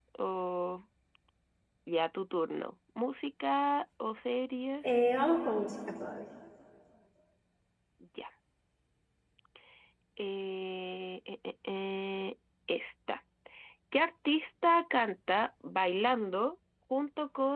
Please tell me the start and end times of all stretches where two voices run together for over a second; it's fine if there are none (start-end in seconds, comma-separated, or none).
none